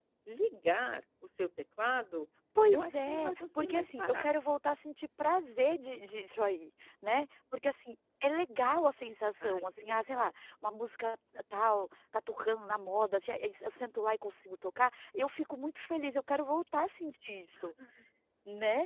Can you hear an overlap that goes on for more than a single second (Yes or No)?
Yes